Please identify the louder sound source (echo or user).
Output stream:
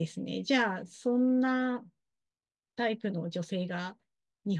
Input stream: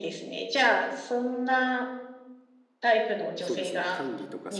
echo